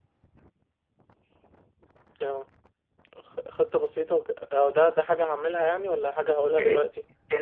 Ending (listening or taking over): taking over